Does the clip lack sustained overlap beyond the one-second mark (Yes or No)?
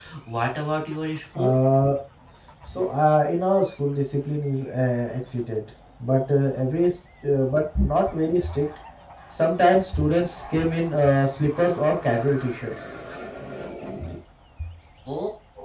Yes